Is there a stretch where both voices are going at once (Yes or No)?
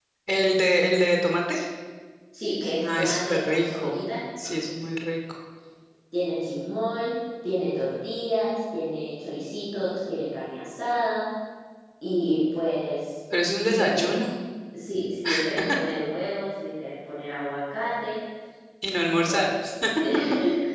Yes